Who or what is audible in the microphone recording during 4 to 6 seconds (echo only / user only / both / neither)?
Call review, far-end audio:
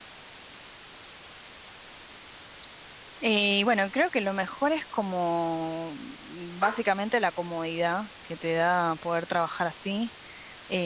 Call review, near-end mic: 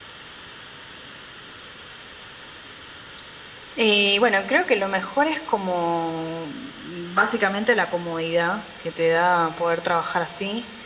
echo only